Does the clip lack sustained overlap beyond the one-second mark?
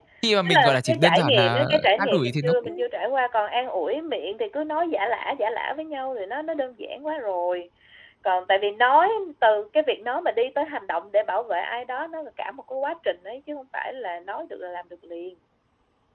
No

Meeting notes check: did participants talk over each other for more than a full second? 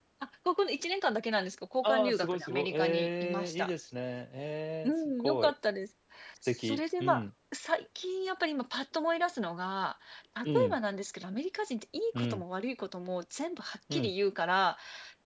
Yes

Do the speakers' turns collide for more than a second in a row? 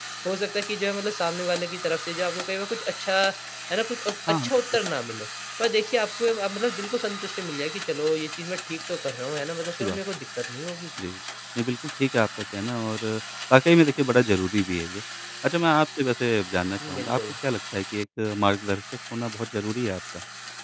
No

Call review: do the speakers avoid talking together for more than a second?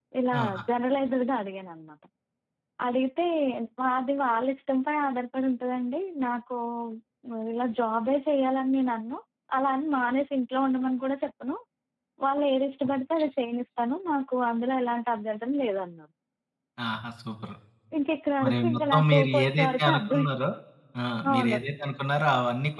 No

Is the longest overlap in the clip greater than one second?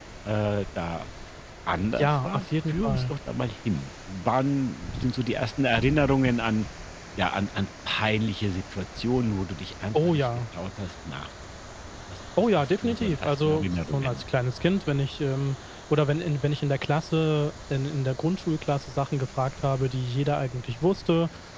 Yes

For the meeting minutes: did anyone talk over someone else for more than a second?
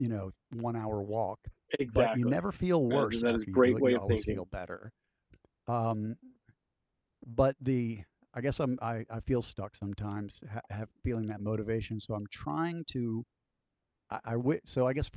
Yes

